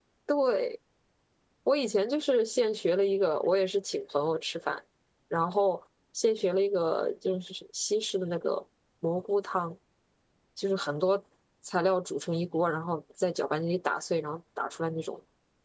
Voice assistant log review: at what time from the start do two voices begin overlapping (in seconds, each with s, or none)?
none